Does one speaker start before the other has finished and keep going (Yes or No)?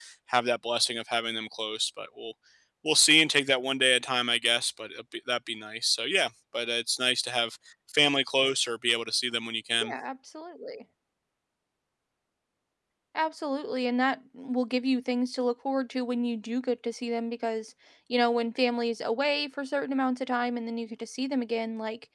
No